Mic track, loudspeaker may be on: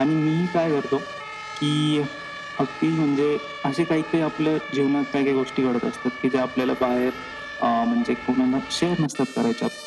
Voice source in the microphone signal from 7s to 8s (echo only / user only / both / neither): echo only